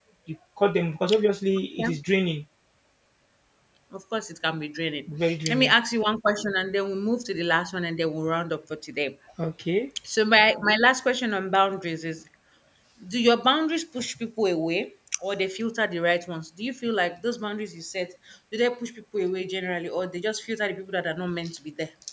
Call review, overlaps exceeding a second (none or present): none